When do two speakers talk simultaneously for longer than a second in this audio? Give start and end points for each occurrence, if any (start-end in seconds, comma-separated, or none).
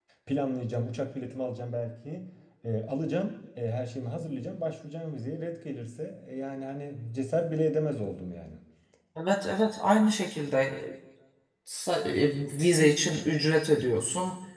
none